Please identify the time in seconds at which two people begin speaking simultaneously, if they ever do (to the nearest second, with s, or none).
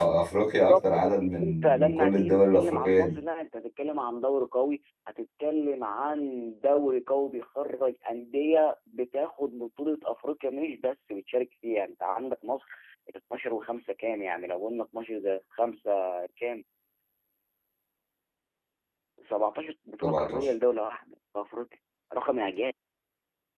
1 s